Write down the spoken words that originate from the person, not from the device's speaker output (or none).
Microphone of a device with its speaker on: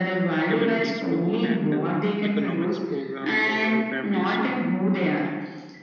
community support and uh, economics program for families so